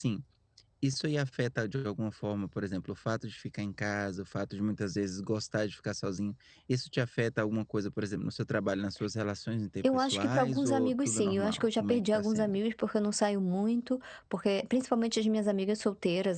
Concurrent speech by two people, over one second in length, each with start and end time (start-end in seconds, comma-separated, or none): 9.8-12.6